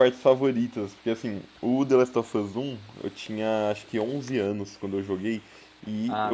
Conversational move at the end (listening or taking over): listening